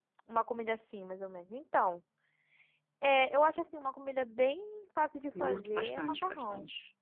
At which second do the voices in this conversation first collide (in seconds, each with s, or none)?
5.3 s